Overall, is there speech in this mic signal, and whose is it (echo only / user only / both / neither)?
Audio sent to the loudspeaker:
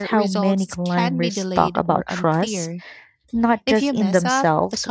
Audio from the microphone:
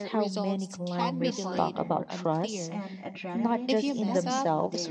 both